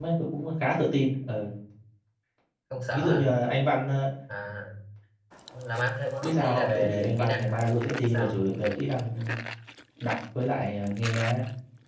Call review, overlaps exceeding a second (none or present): present